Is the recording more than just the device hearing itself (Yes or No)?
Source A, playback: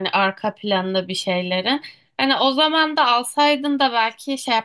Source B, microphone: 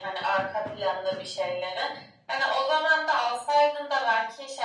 No